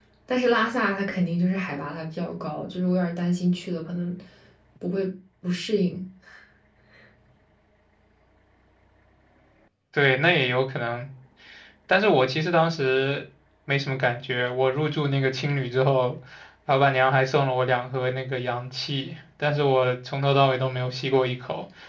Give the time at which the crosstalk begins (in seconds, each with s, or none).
none